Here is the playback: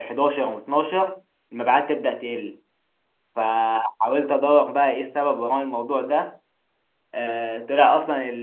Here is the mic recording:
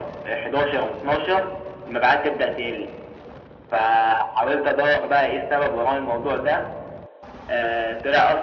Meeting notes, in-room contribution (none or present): none